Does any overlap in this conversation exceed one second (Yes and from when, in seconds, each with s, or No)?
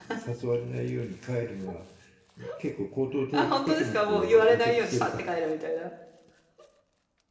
Yes, from 3.3 s